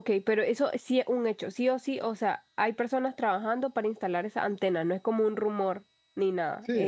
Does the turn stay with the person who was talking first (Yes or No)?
No